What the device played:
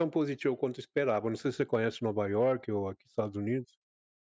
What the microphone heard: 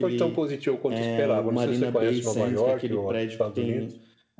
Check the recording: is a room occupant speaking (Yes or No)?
Yes